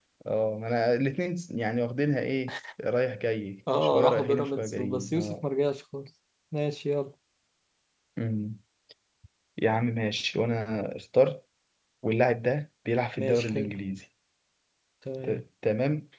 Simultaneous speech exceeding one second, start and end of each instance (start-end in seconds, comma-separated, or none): 3.8-5.4